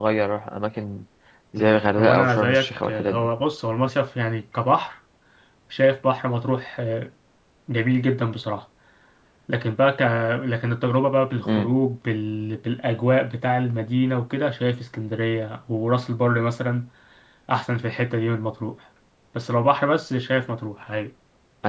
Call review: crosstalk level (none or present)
present